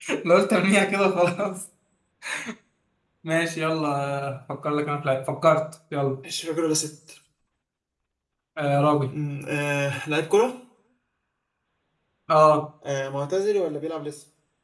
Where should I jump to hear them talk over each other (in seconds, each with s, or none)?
none